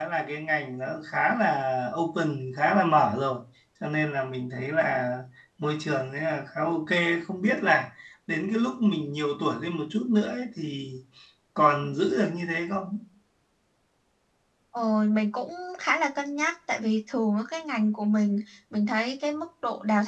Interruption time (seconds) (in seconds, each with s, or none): none